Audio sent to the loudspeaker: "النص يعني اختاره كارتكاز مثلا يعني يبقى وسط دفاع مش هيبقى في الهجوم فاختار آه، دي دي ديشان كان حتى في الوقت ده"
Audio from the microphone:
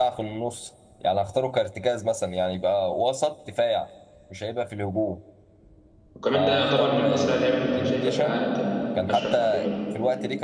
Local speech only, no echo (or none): وكمان ده يعتبر من اسرع اللعيبة ف- شايفها في العالم كمان اشرف حكيمي ده